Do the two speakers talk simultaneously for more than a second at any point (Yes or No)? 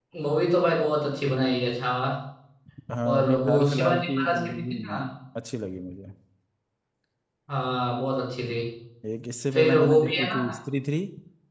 Yes